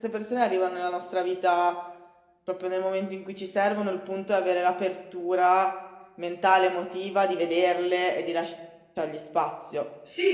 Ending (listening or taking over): taking over